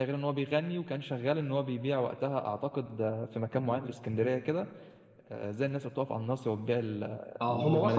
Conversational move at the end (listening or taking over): taking over